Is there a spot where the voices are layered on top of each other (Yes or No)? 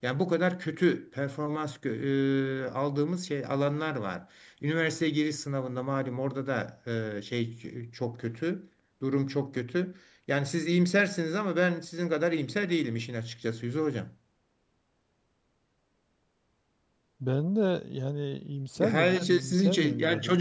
Yes